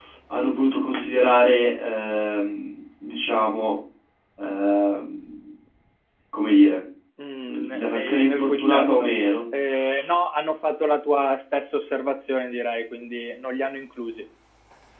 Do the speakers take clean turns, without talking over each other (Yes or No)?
No